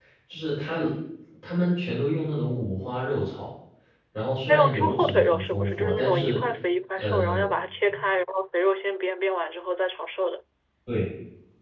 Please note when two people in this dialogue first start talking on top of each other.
4.4 s

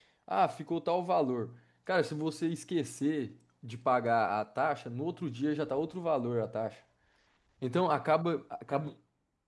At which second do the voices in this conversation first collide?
none

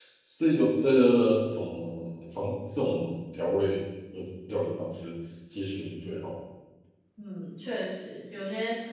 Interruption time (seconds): none

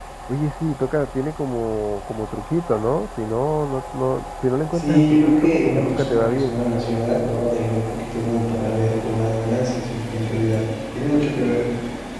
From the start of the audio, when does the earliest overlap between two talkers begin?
4.7 s

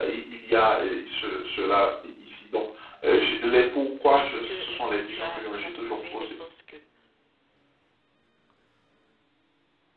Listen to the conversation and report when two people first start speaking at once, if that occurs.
3.9 s

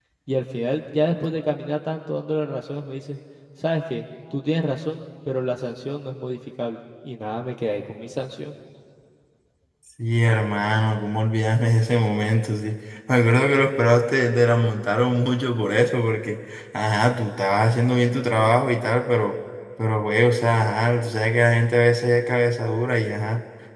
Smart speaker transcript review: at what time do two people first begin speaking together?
none

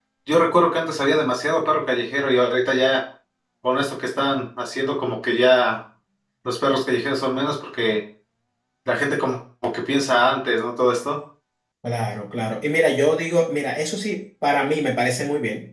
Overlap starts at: none

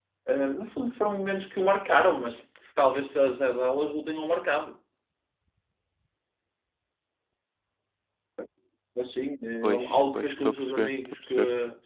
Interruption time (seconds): 9.6 s

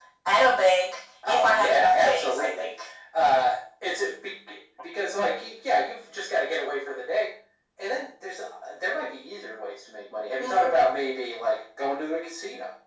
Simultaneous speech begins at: 1.2 s

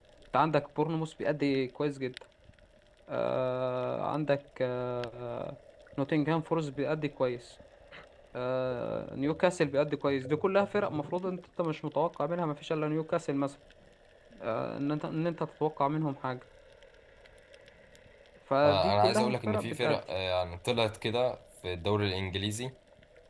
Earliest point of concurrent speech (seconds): 18.6 s

